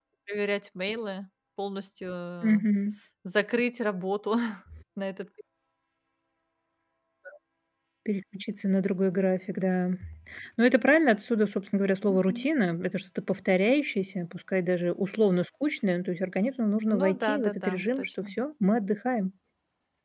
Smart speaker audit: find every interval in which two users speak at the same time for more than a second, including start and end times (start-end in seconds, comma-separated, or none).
17.0-18.3